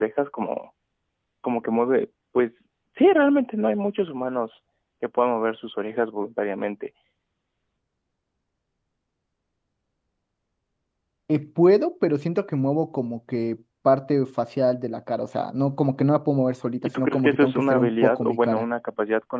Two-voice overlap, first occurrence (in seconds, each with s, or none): 16.8 s